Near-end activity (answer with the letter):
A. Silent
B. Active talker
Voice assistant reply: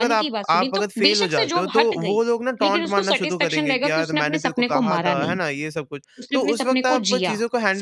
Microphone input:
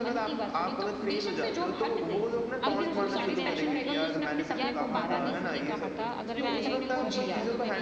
B